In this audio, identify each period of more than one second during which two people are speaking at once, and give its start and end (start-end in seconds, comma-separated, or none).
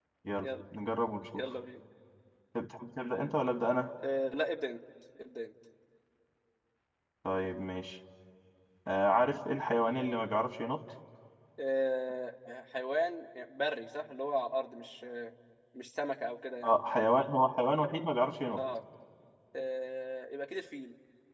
none